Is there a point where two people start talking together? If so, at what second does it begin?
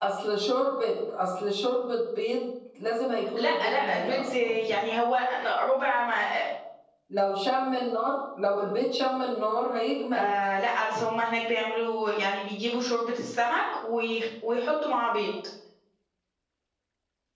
3.4 s

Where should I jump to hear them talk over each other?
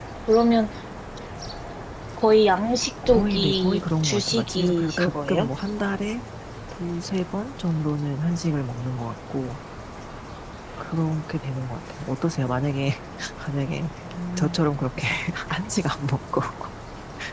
3.1 s

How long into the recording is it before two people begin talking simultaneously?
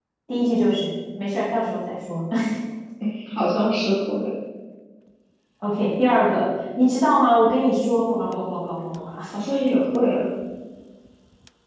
none

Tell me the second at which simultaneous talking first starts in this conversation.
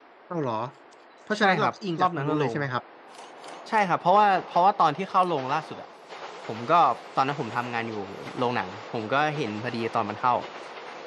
1.4 s

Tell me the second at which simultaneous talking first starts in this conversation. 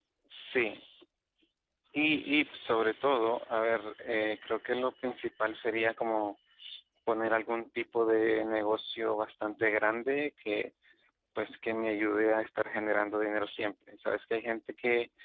none

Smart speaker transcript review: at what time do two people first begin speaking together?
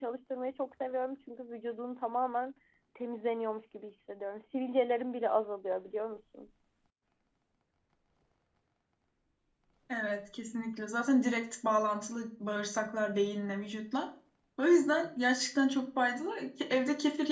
none

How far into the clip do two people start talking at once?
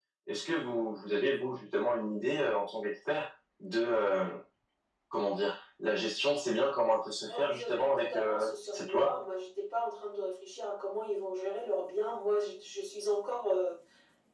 7.3 s

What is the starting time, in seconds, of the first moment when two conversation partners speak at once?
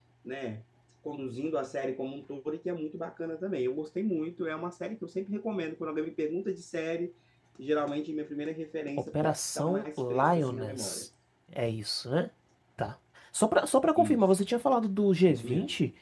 9.2 s

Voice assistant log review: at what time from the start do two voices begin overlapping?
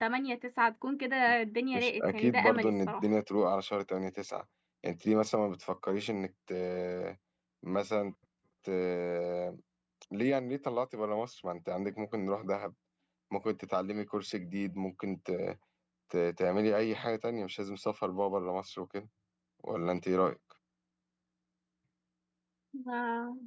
1.7 s

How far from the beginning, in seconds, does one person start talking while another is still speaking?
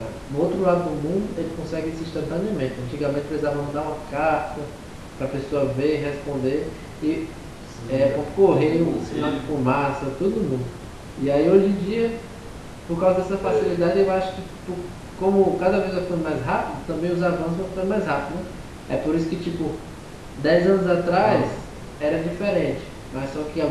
7.9 s

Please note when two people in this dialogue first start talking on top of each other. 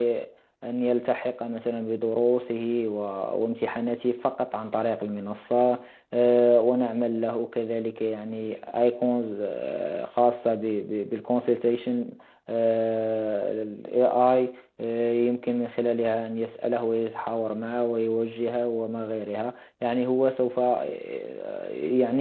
none

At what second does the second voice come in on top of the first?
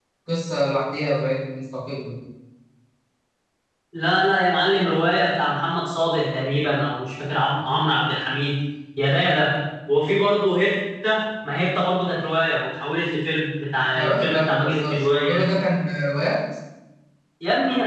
13.9 s

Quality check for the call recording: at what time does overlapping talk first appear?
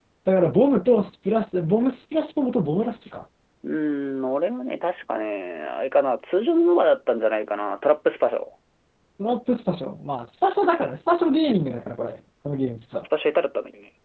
none

